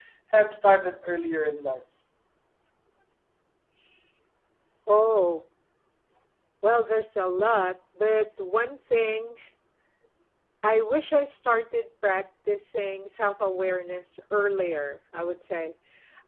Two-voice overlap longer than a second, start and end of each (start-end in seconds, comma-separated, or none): none